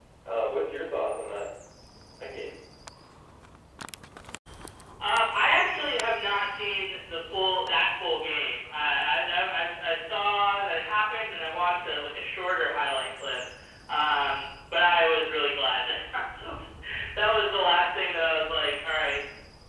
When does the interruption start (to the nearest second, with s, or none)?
none